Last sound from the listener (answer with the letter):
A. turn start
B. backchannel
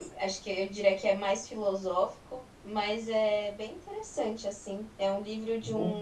B